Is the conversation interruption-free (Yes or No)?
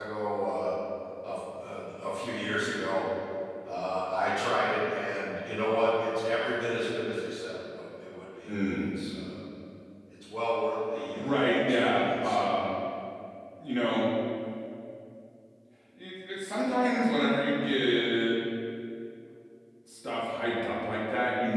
No